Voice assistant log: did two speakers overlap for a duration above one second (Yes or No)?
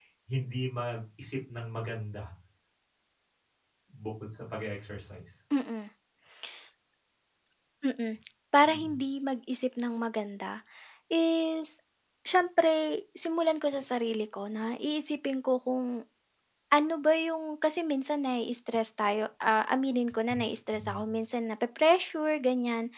No